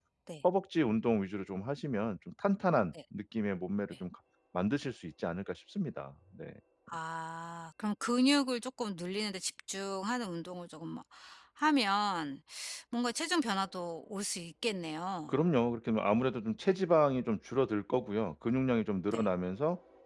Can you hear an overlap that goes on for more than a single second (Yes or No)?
No